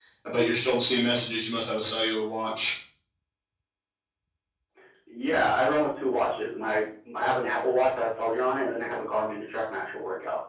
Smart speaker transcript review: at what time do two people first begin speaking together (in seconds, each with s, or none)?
none